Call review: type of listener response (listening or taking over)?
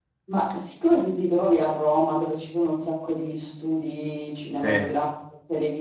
listening